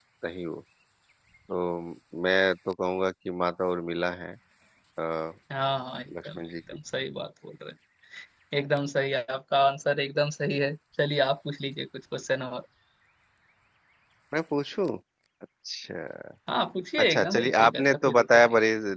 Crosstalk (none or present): present